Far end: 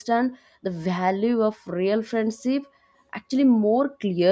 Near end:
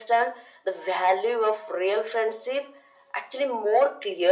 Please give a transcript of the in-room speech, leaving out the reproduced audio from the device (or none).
none